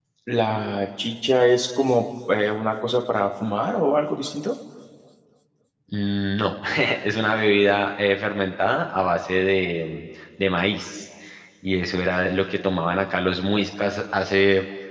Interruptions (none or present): none